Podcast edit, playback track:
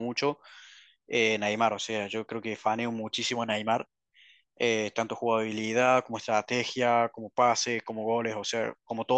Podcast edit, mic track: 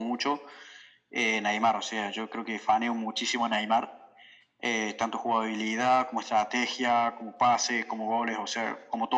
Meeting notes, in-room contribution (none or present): none